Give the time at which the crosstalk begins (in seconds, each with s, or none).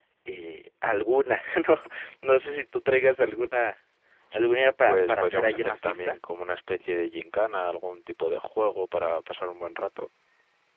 4.9 s